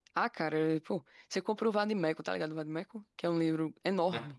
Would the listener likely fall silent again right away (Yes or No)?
No